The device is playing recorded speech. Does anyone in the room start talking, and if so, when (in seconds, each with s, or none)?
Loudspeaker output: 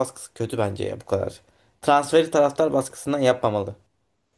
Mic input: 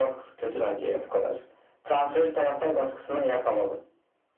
none